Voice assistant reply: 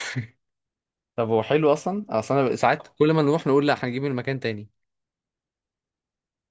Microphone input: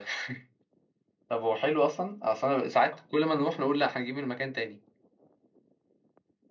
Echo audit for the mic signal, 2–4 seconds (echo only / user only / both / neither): echo only